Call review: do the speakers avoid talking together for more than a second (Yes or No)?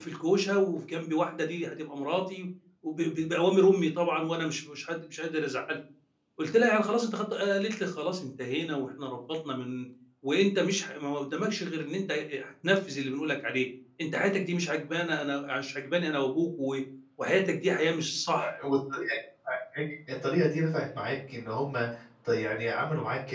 Yes